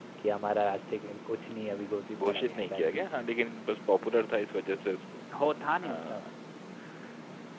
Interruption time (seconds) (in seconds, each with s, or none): 2.2 s